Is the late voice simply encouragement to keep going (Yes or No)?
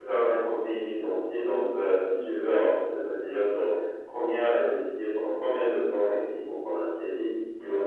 Yes